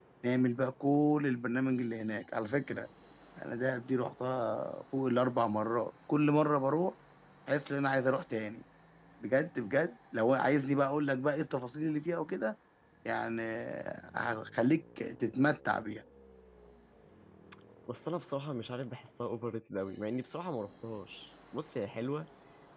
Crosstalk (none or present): none